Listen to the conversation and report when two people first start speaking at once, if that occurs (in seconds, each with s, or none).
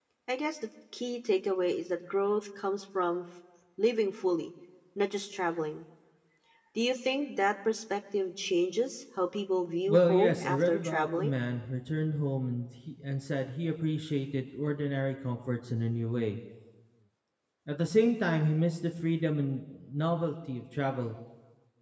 9.9 s